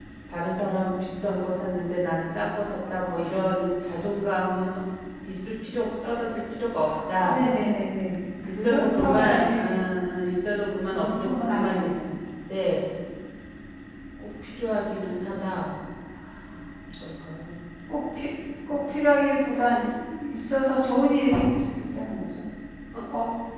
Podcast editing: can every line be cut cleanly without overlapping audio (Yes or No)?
No